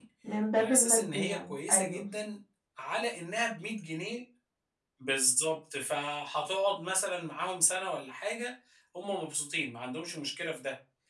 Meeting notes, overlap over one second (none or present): present